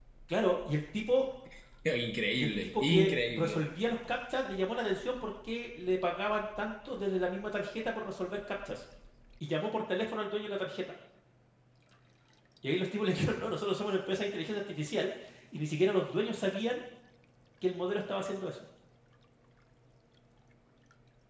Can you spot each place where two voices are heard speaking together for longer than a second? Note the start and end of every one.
2.4-3.6

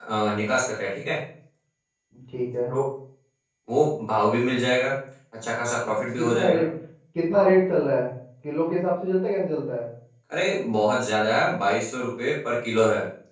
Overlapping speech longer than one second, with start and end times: none

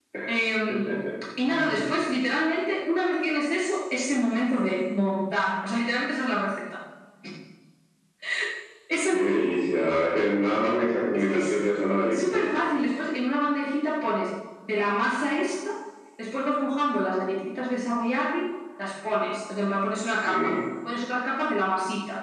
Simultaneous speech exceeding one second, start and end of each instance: none

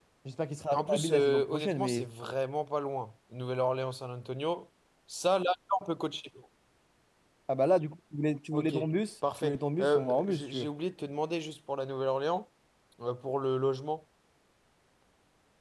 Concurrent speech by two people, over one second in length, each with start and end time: 0.7-2.1, 9.4-10.7

